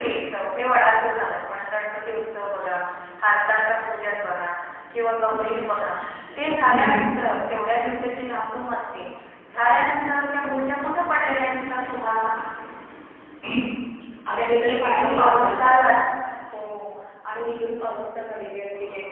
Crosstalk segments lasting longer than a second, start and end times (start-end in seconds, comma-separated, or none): 14.4-15.7